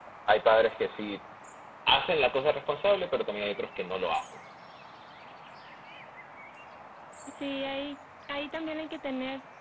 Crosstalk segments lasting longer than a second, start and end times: none

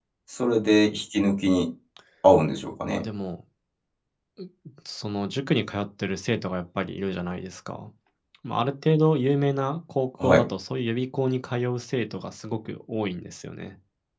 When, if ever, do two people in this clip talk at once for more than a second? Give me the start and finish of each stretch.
none

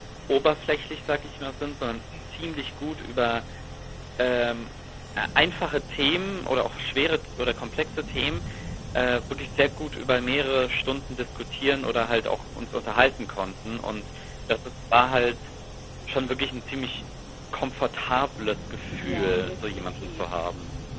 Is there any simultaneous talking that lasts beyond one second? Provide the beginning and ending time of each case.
19.0-20.4

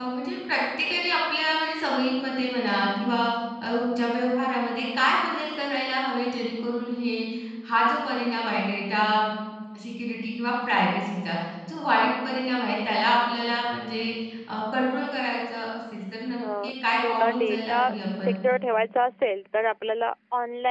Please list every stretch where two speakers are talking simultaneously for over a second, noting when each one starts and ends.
16.4-17.8

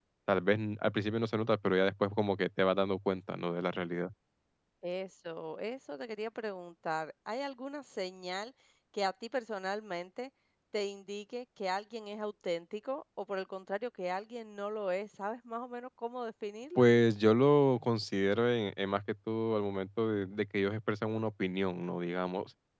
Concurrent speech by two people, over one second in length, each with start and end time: none

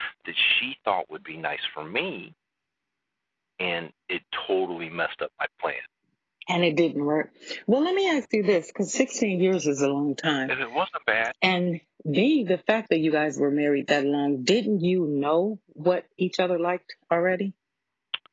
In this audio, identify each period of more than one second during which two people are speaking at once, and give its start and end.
none

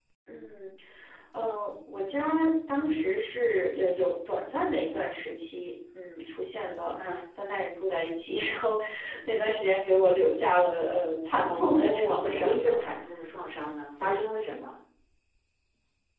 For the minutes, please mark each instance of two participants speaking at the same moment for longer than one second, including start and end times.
11.5-12.9

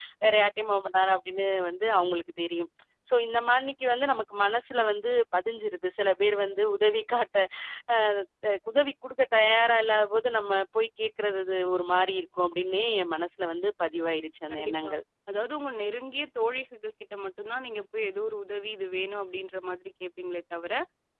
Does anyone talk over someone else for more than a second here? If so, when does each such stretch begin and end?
none

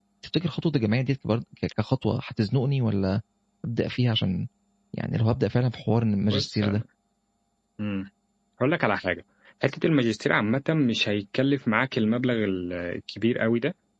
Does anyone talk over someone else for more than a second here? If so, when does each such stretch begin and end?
none

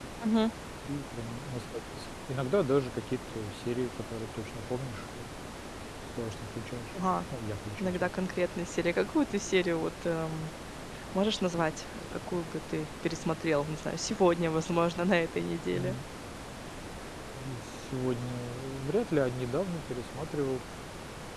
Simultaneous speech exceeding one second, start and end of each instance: none

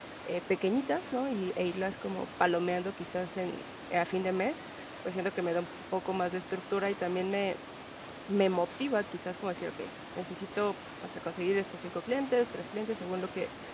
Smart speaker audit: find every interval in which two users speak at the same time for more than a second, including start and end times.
none

